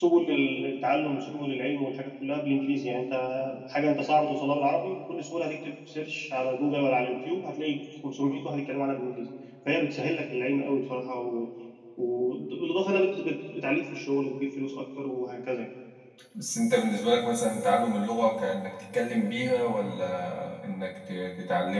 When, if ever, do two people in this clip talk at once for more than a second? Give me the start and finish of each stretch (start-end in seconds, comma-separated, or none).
none